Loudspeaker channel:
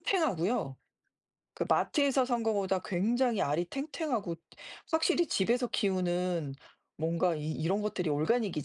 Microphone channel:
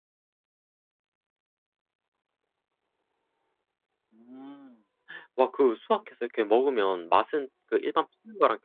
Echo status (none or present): none